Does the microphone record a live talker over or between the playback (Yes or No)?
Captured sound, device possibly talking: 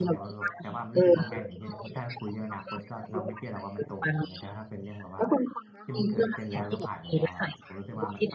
Yes